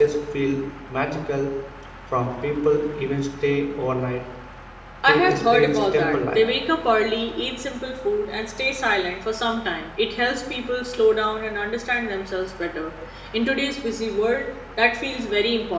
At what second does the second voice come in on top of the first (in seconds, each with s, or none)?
5.1 s